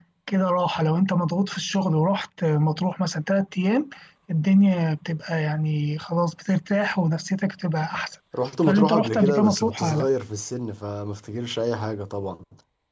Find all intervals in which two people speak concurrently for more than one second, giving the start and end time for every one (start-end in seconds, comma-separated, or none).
8.6-10.1